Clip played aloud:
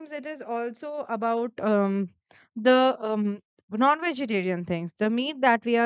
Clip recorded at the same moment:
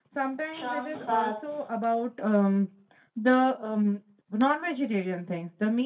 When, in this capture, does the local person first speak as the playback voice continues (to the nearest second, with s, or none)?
1 s